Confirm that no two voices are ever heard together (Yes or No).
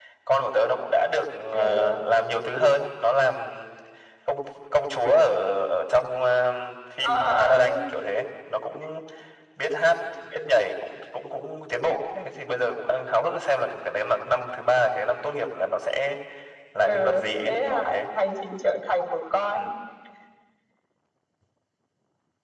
No